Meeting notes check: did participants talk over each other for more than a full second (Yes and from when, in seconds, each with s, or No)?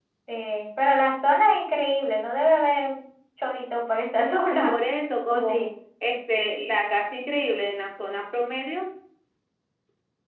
No